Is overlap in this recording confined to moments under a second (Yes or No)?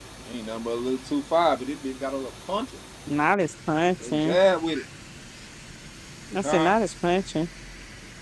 Yes